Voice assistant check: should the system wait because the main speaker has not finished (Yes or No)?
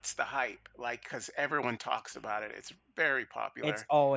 No